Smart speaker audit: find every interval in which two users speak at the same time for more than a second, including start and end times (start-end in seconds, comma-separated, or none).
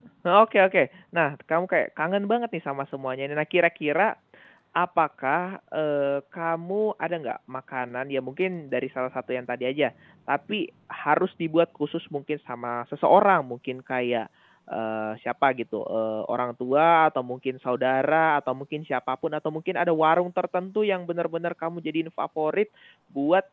none